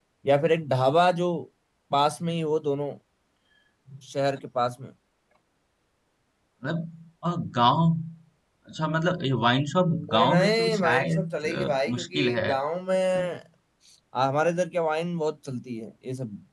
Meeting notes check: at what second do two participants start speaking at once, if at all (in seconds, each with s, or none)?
9.9 s